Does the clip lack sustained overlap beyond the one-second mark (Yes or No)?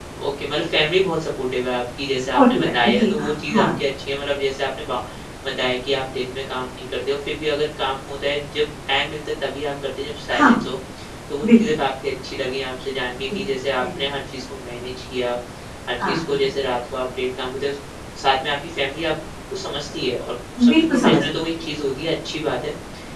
No